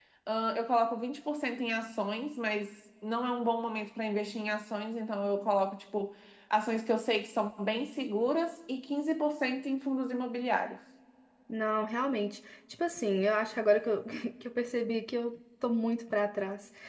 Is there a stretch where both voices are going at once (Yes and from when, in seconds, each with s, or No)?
No